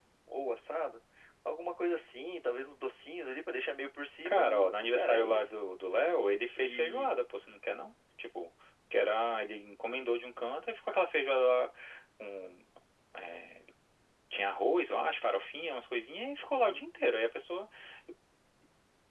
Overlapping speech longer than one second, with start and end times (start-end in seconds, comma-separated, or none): 4.3-5.5